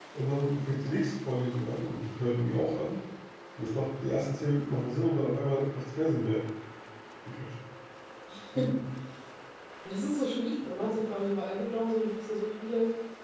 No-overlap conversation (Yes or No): Yes